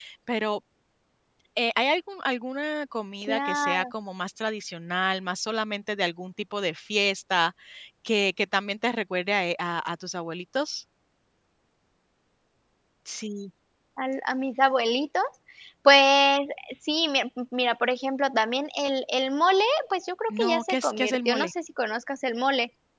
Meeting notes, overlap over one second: present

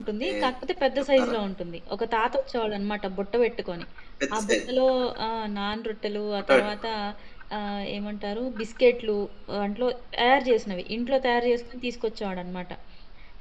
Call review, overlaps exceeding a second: none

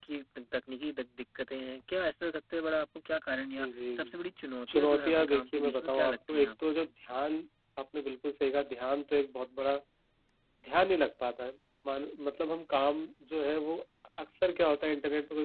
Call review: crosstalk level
present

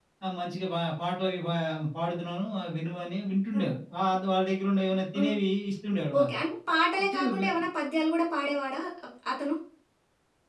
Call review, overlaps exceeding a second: none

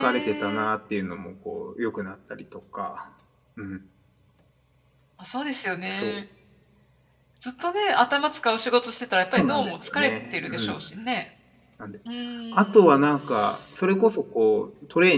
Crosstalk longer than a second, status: present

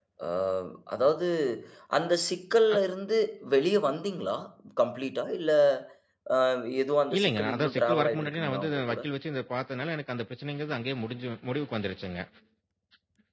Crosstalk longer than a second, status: present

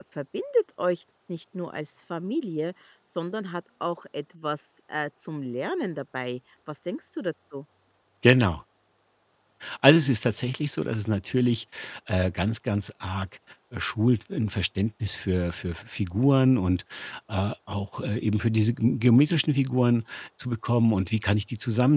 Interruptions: none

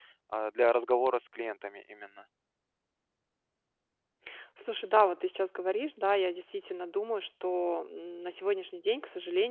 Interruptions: none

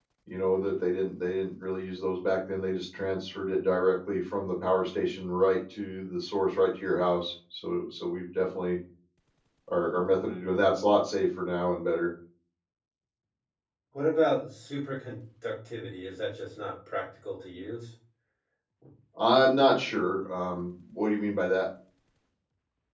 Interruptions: none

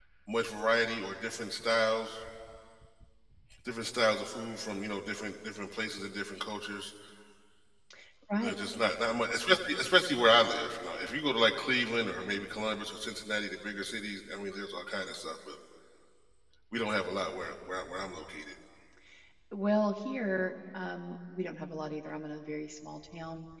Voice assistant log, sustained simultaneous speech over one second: none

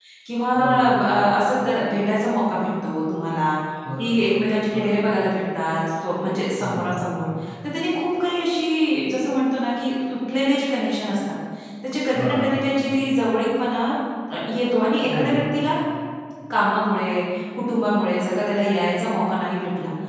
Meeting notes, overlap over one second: none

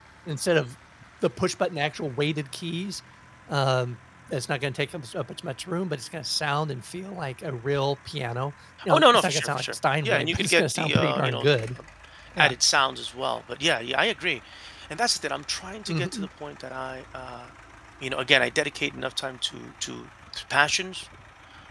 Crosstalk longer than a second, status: present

